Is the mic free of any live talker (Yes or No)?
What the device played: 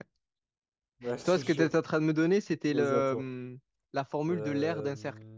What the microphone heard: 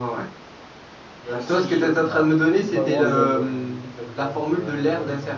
No